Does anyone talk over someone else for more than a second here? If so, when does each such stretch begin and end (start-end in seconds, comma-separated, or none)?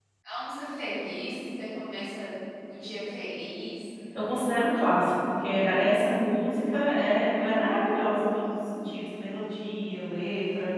none